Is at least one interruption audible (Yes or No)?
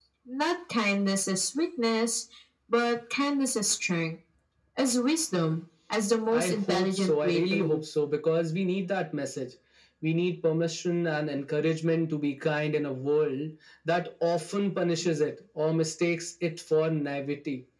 Yes